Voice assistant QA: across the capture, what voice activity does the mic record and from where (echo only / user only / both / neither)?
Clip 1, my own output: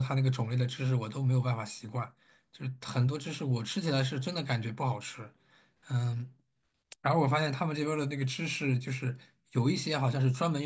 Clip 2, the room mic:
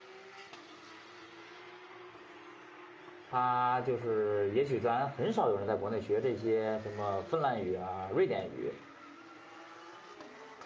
user only